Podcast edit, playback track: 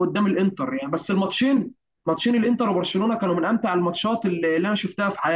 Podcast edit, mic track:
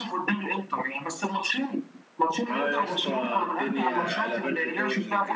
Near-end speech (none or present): present